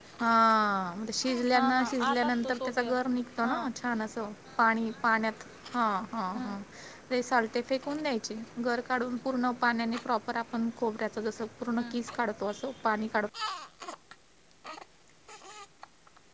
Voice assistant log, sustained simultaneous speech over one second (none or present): present